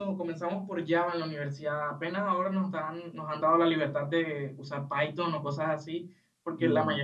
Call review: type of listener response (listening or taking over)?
listening